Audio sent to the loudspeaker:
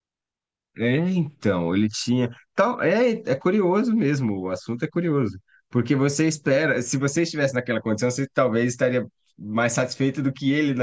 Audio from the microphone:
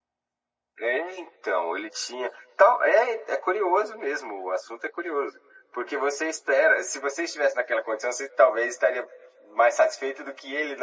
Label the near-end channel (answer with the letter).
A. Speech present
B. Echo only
B